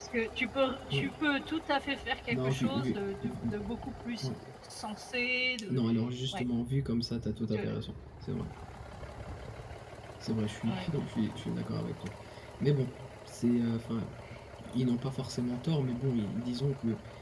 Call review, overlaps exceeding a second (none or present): present